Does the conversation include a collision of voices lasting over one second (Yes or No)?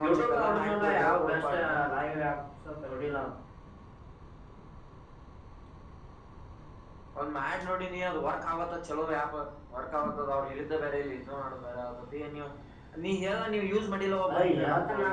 Yes